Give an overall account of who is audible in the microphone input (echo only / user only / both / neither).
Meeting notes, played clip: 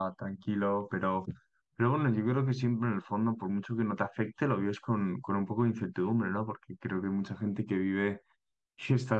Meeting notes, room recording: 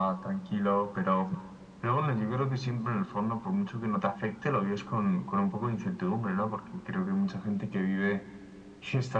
echo only